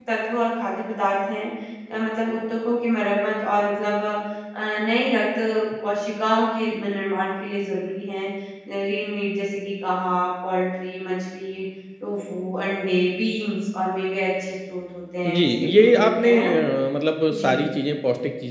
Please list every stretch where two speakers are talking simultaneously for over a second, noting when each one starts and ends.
15.3-16.5

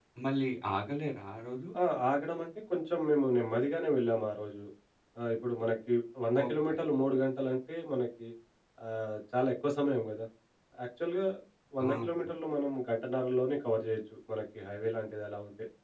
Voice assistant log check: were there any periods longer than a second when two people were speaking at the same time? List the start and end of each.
none

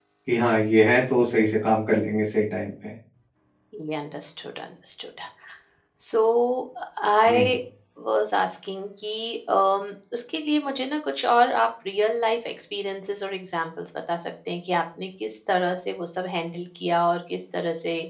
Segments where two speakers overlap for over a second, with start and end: none

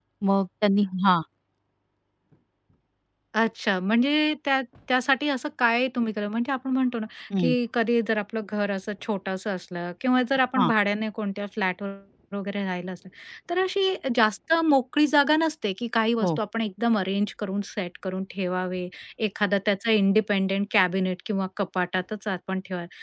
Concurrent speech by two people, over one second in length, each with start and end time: none

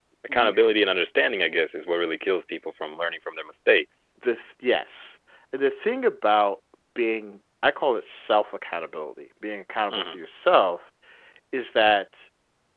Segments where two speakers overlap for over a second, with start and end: none

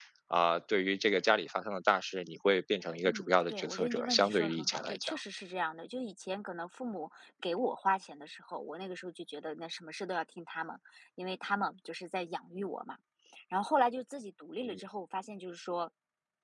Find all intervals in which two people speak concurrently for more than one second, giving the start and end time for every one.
3.1-5.2

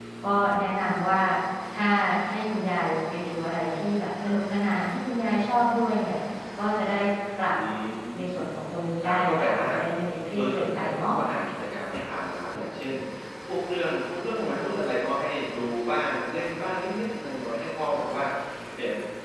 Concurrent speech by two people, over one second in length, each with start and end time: 9.0-11.1

